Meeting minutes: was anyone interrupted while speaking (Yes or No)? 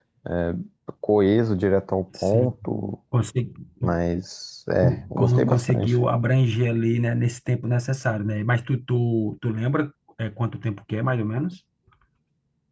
Yes